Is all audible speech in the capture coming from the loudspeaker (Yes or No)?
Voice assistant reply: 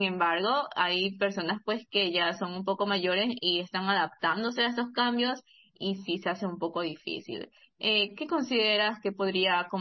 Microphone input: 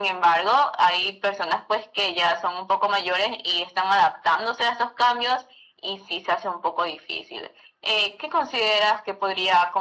Yes